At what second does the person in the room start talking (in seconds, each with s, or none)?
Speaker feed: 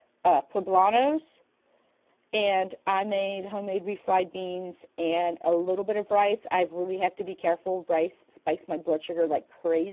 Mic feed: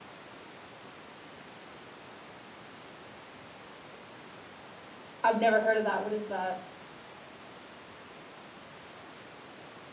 5.2 s